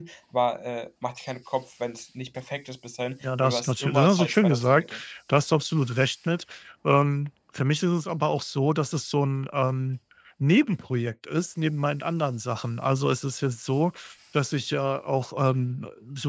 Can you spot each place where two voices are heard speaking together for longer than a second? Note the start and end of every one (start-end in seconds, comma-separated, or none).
3.2-4.9